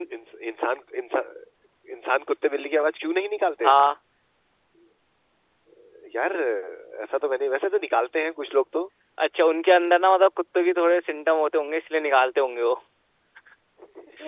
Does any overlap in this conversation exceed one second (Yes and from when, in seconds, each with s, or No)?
No